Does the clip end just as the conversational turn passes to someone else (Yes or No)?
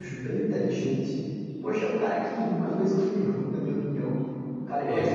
No